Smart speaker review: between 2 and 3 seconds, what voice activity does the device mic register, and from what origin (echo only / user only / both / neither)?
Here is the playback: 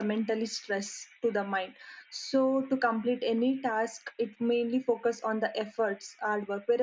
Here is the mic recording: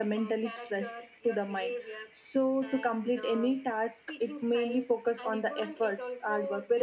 both